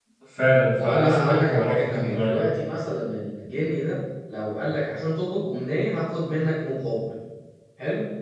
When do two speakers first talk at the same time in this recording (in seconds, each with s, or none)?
0.8 s